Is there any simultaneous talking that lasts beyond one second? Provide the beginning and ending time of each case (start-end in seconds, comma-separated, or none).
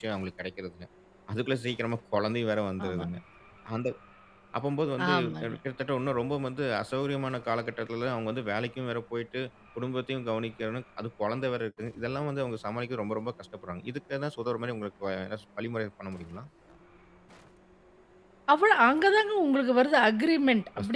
none